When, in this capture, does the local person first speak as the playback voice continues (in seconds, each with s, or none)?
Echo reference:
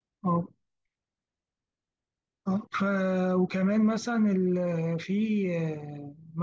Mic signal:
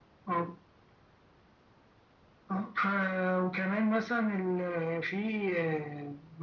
none